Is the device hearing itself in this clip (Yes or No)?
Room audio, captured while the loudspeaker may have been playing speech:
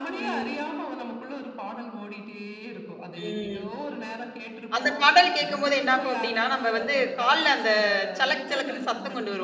Yes